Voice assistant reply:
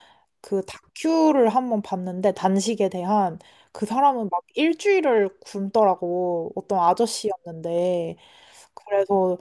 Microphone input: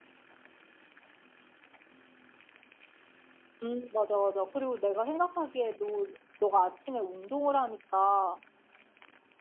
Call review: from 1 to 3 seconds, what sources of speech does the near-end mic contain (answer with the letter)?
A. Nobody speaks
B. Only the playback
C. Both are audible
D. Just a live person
A